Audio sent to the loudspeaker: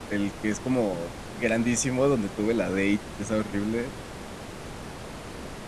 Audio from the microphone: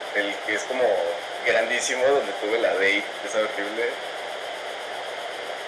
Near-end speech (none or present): none